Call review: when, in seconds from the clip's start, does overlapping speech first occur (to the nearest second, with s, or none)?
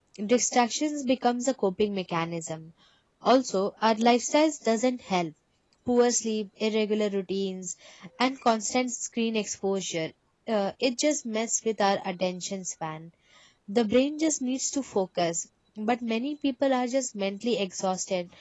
none